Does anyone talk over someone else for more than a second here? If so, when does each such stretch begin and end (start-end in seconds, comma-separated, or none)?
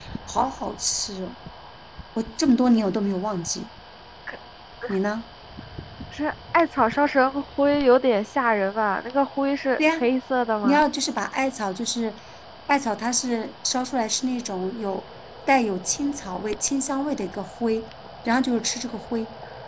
none